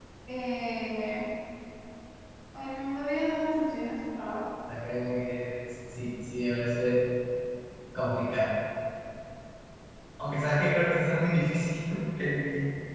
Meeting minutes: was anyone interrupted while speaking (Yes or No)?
No